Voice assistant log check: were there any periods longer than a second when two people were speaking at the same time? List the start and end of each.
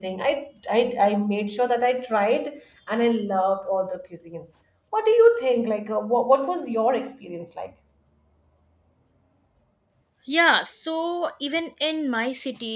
none

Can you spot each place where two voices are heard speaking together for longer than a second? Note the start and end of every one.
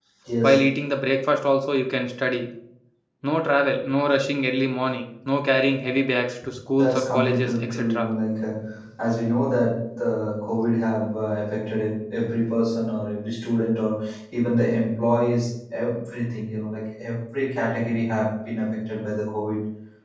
6.8-8.1

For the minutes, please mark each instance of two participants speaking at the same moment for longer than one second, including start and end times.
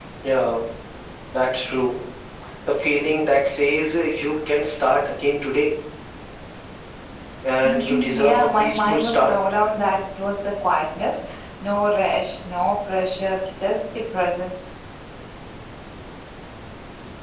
7.6-9.4

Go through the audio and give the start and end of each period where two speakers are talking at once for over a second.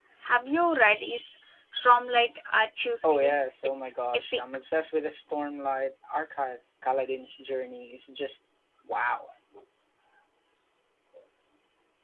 3.0-4.4

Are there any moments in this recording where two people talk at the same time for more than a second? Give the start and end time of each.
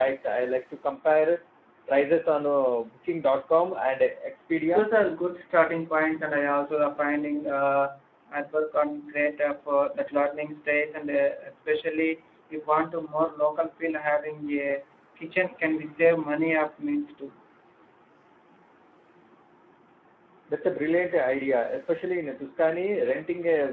none

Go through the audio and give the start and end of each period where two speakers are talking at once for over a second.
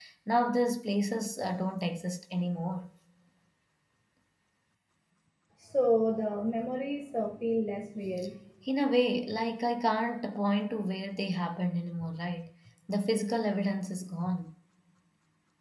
none

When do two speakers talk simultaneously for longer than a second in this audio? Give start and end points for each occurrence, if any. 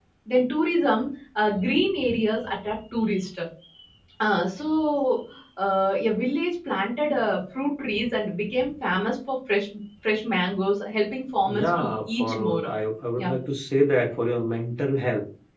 11.5-12.7

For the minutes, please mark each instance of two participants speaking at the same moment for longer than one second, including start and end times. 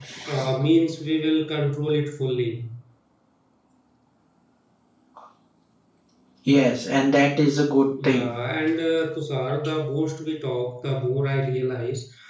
none

